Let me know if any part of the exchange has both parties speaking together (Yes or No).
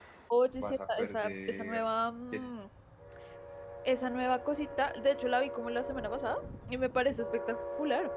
Yes